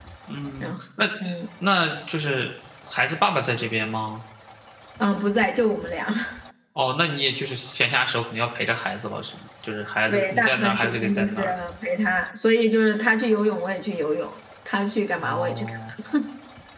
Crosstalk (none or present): present